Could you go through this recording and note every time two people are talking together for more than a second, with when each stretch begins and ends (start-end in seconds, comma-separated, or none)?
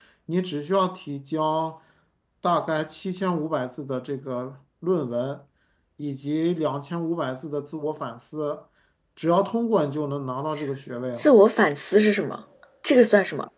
none